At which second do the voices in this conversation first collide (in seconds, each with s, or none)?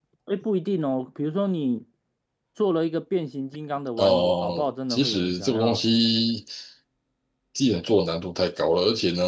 4.0 s